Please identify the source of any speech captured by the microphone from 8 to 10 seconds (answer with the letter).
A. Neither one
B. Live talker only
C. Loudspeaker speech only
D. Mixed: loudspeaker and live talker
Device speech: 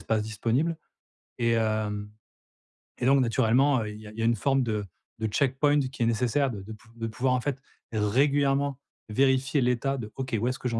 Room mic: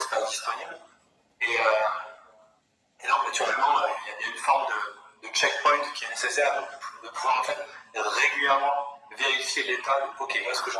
C